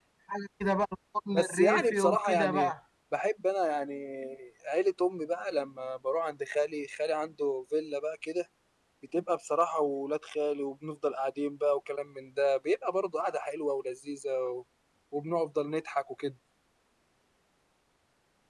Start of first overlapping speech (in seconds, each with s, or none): 1.3 s